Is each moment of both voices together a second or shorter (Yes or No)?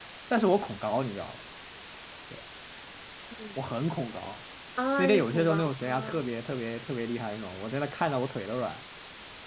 No